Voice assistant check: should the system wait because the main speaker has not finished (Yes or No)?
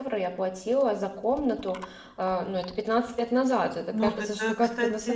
No